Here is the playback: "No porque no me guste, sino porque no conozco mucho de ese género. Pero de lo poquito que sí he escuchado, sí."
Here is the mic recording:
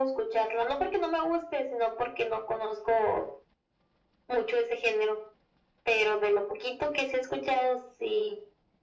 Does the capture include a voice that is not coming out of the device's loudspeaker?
No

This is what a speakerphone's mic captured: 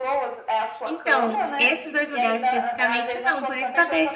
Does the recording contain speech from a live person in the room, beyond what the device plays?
Yes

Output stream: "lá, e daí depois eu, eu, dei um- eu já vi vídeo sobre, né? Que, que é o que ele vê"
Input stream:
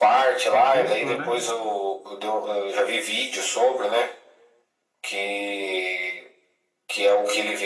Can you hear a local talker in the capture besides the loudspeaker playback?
Yes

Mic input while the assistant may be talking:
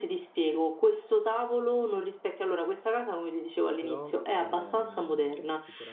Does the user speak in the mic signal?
Yes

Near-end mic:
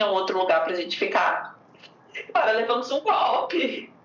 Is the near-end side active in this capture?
No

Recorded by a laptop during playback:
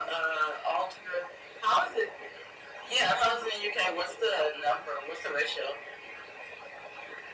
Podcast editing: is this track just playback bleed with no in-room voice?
Yes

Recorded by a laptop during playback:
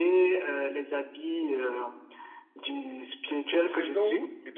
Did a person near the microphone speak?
Yes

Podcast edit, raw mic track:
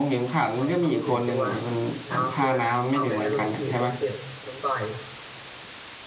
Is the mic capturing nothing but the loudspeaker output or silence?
No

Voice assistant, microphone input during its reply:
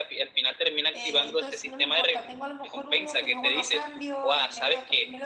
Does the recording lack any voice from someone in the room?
No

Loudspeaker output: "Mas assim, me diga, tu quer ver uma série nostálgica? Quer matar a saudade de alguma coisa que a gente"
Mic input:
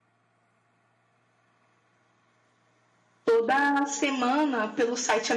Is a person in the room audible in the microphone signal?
Yes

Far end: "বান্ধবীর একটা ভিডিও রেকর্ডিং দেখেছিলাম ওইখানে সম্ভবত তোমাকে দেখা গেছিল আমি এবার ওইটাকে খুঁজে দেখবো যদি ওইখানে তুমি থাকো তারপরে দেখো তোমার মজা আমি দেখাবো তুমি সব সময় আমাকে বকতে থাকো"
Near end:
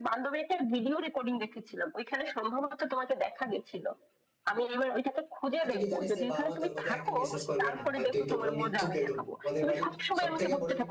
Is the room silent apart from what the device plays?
No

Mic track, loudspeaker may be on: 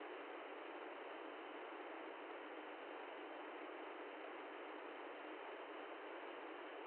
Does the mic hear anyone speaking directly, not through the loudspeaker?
No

